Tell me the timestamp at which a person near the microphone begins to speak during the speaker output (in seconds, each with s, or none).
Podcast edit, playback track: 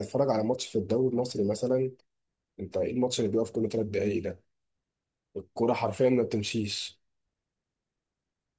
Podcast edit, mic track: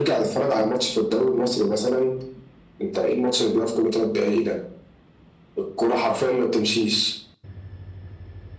none